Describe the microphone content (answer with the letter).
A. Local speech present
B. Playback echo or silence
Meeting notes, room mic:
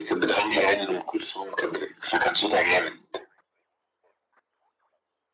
B